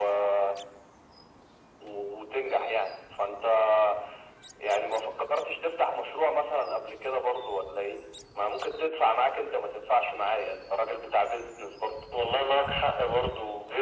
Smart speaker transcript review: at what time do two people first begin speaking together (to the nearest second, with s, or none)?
none